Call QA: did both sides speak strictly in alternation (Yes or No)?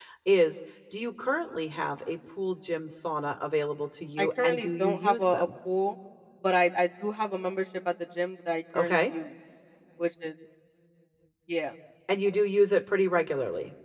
No